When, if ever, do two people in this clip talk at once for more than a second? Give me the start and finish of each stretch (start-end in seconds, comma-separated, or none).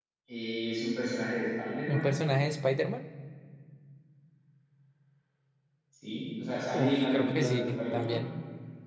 6.7-8.2